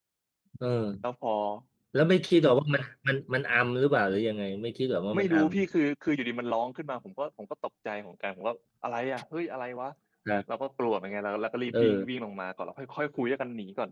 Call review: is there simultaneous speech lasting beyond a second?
No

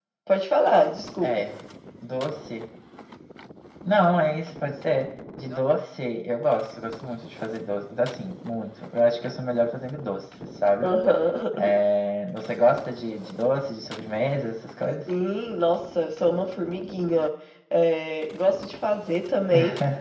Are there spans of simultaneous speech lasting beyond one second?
No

